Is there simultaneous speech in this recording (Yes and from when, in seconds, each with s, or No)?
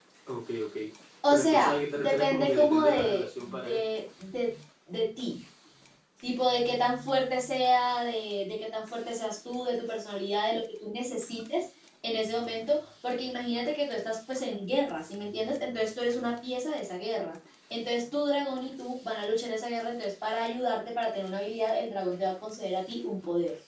Yes, from 1.3 s